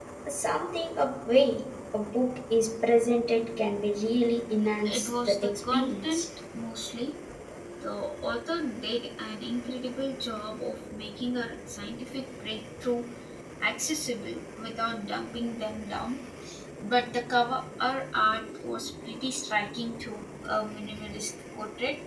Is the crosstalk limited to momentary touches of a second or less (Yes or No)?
No